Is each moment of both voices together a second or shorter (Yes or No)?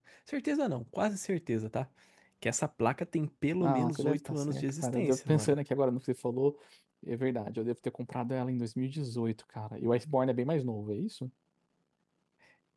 No